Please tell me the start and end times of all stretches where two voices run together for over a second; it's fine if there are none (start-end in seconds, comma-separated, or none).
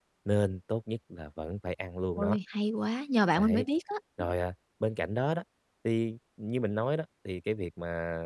none